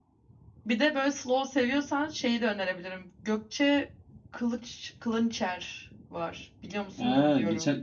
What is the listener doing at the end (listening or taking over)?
taking over